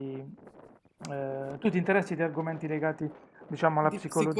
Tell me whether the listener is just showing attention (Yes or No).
No